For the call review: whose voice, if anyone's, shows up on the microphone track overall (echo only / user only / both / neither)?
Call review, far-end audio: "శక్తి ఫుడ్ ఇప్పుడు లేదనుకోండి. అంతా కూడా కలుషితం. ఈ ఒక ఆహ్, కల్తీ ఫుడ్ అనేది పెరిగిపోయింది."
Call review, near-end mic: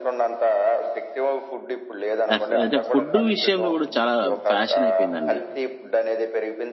both